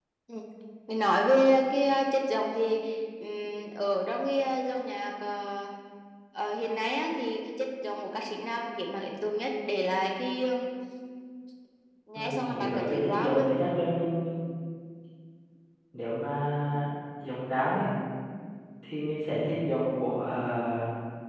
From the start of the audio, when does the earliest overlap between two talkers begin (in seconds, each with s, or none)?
12.2 s